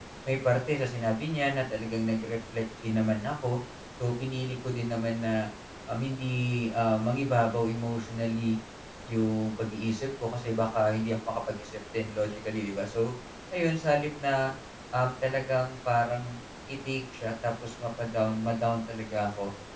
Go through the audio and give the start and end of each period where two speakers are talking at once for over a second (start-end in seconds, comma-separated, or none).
none